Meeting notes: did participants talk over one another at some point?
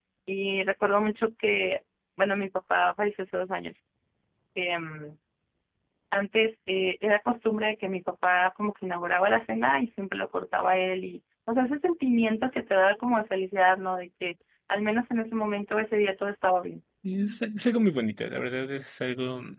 No

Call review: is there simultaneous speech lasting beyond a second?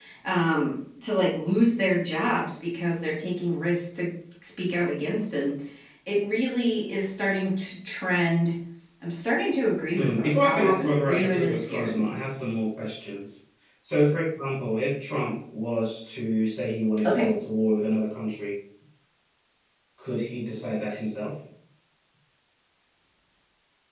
Yes, from 10.0 s

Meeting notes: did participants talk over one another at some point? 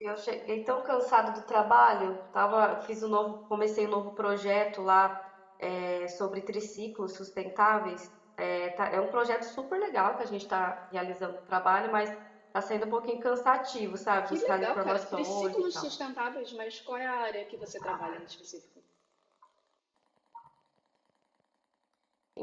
Yes, from 14.2 s

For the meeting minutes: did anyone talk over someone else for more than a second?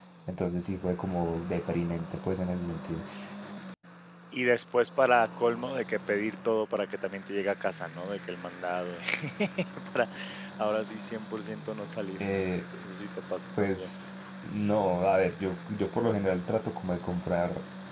No

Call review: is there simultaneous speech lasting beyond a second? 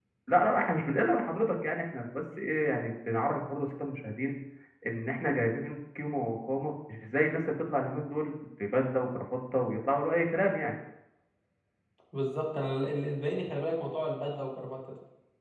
No

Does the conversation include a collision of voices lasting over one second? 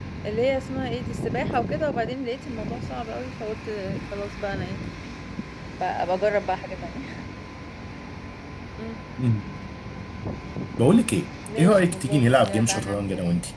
Yes, from 11.6 s

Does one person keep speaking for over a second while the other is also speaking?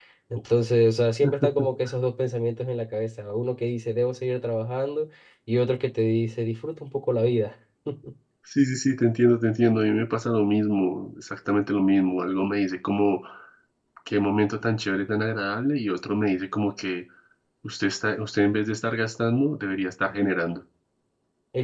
No

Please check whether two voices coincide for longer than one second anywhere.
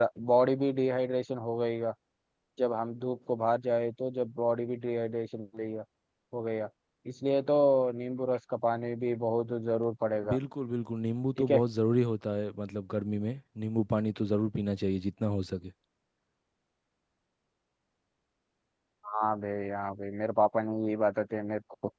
No

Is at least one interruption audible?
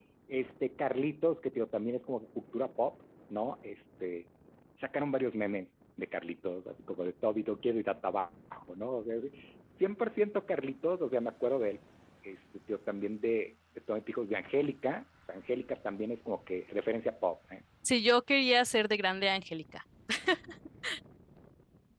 No

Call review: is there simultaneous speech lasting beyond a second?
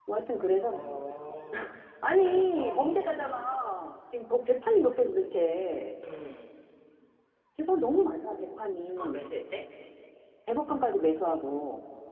Yes, from 2.1 s

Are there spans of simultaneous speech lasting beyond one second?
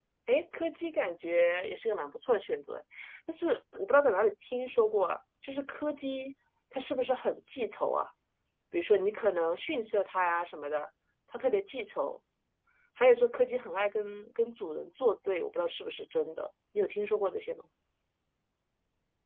No

